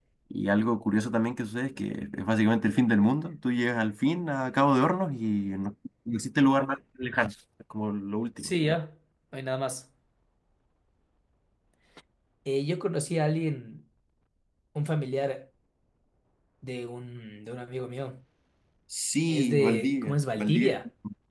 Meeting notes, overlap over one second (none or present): present